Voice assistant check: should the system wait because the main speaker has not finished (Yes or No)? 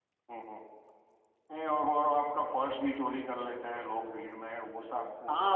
No